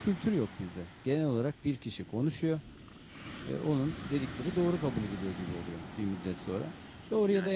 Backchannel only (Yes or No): Yes